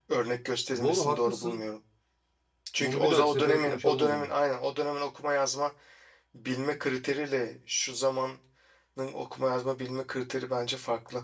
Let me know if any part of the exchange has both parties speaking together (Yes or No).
Yes